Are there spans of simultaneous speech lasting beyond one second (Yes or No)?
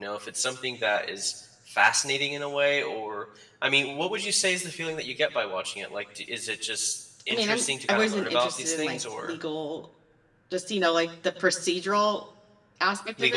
Yes